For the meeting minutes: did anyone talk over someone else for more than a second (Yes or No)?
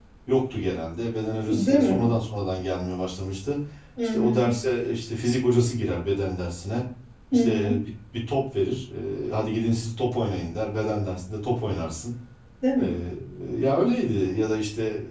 No